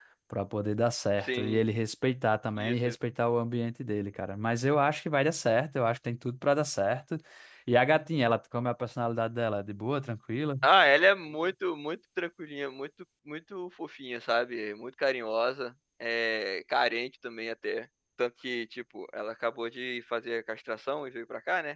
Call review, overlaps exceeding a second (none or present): none